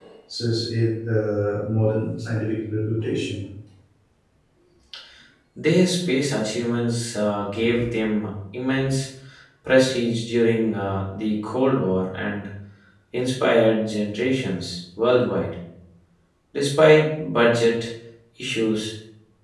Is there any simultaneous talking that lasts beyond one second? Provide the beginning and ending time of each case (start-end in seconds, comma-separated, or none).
none